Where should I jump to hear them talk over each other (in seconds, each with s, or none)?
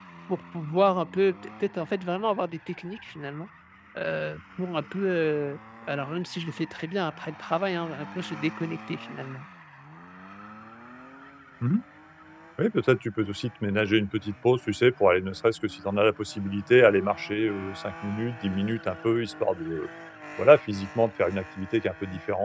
none